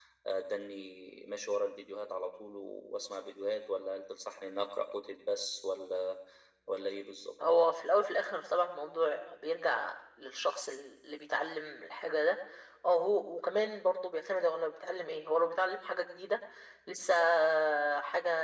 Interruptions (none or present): none